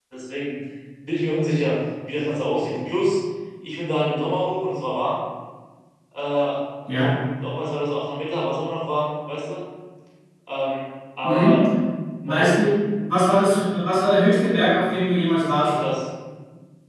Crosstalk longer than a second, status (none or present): none